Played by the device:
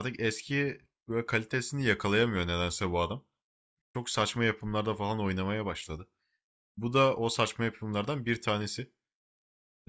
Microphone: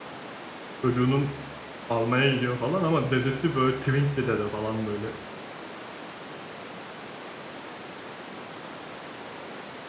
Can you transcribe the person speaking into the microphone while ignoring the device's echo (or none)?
Çocuğunun almaya gidiyor falan ama dedesi böyle twink bir dede falan böyle